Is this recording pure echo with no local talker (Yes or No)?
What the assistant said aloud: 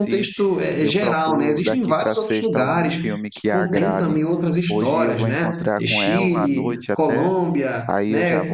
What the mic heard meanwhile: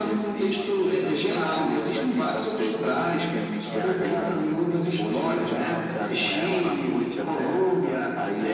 No